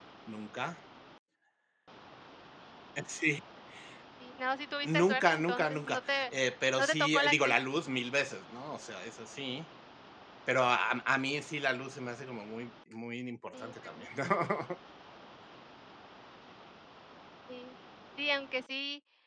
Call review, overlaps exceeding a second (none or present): present